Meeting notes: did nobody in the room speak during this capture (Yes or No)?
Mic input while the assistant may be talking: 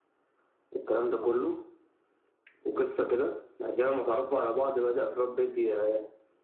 Yes